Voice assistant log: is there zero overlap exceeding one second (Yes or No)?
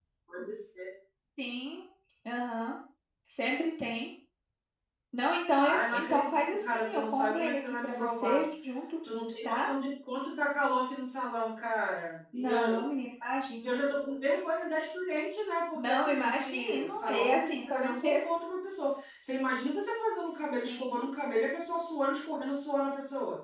No